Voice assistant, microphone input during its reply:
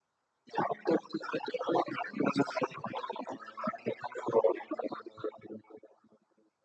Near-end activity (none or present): none